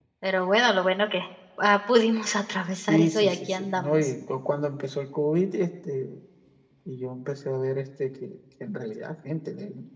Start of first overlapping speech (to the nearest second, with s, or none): 3 s